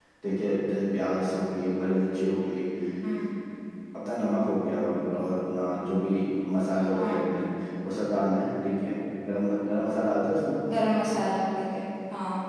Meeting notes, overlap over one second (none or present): none